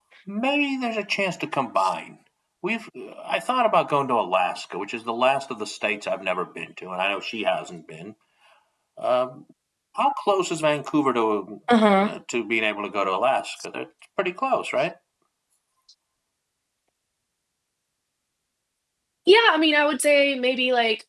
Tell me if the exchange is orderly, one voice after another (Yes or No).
Yes